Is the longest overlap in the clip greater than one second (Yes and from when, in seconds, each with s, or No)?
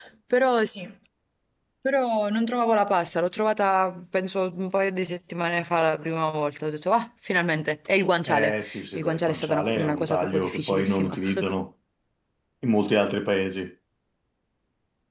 Yes, from 8.2 s